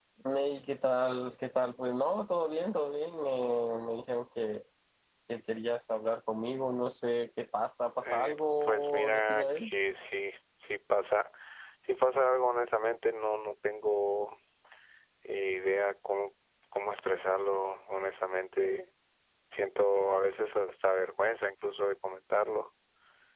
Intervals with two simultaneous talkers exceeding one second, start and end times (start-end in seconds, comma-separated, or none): 8.0-9.7